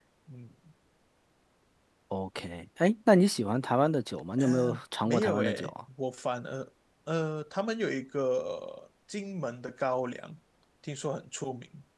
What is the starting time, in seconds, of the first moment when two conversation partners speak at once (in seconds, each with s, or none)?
4.4 s